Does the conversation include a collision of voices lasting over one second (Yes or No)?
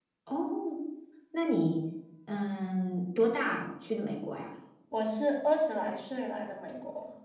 No